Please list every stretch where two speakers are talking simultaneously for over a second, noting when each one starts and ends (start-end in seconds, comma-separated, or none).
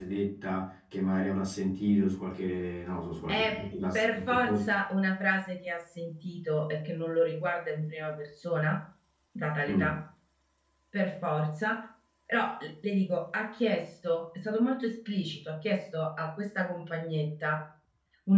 3.3-4.7